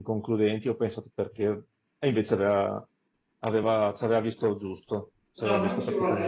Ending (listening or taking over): taking over